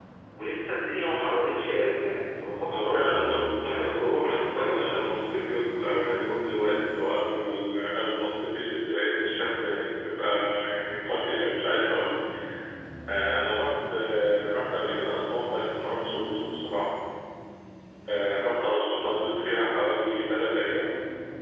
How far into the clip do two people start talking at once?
3 s

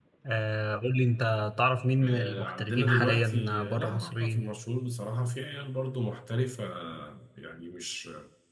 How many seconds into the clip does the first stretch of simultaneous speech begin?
2 s

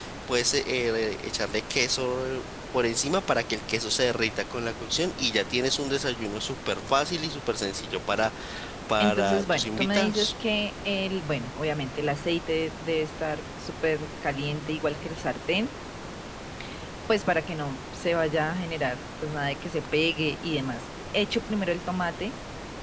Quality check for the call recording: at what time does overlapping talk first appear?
9 s

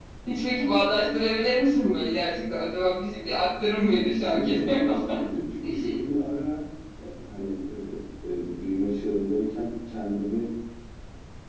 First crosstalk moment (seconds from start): 4 s

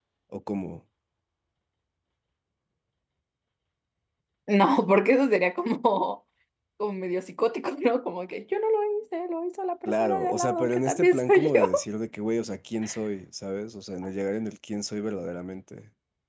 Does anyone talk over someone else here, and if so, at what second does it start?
10 s

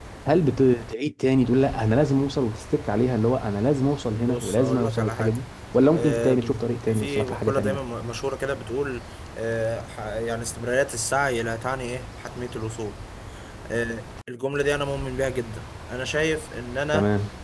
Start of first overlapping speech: 4 s

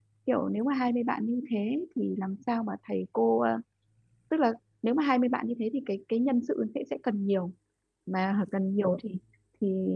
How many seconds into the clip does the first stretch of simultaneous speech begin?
none

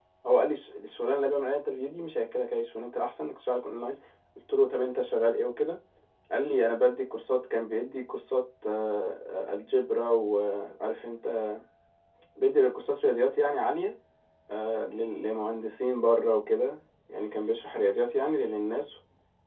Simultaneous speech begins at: none

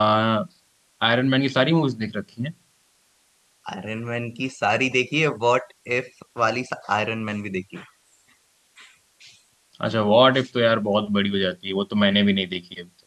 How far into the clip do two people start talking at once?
none

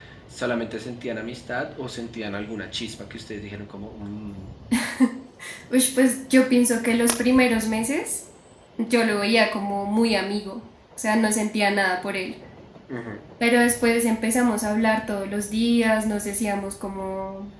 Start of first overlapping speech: none

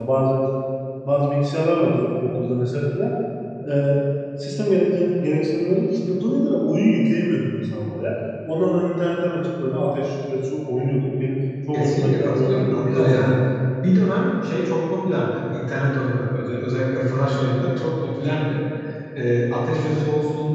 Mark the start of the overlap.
12 s

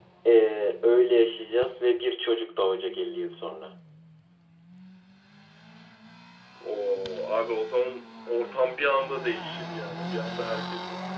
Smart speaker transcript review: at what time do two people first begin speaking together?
none

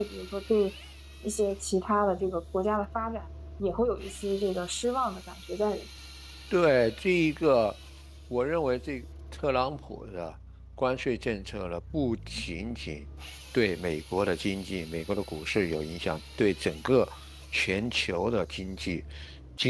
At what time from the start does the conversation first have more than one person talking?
none

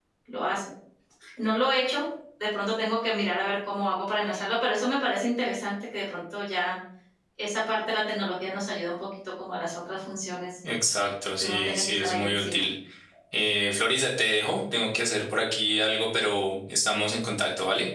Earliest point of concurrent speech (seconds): 11 s

